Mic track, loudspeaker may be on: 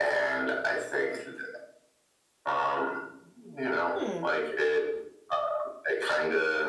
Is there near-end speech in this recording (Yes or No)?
Yes